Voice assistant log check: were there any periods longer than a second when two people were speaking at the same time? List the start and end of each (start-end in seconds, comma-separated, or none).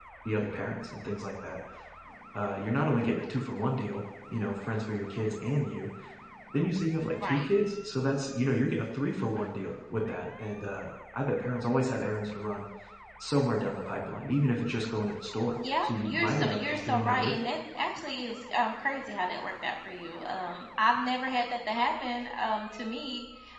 15.8-17.4